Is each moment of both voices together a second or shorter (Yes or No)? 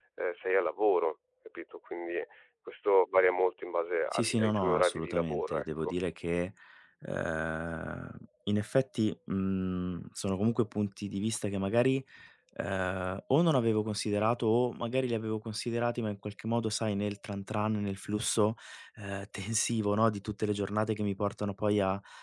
No